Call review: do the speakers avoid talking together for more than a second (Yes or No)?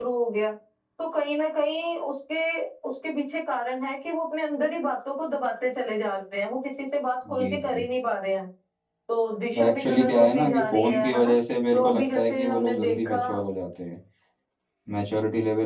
No